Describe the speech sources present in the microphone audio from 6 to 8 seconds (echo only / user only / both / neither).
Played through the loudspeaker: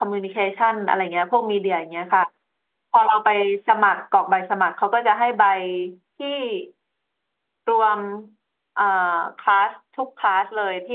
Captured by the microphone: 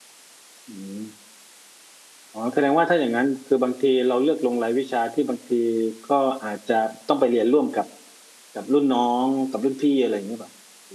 user only